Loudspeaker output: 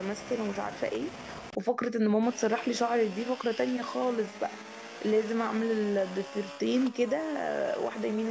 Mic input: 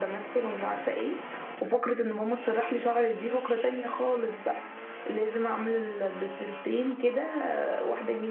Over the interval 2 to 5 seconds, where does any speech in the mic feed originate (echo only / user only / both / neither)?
echo only